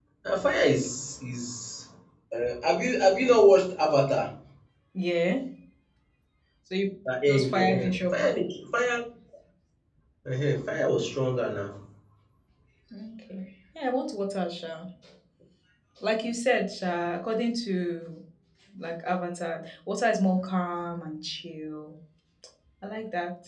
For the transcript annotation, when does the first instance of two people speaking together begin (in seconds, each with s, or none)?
7.3 s